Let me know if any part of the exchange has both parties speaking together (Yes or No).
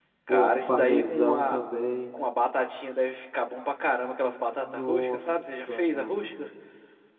Yes